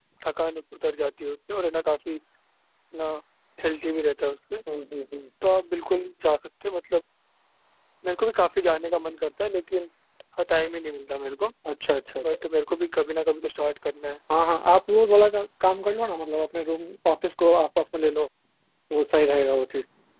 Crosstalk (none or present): none